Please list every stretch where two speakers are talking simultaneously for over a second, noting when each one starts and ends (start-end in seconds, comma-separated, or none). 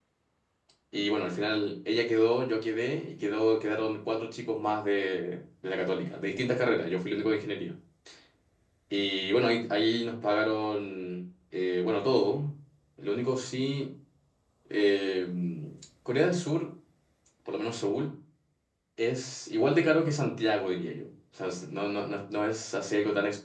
none